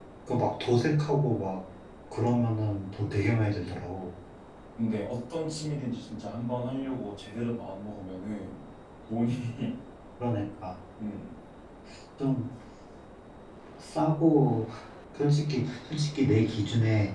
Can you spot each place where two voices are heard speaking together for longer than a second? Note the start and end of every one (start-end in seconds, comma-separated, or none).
none